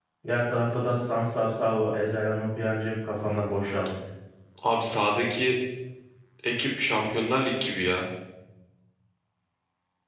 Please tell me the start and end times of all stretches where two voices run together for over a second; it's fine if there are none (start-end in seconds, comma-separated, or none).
none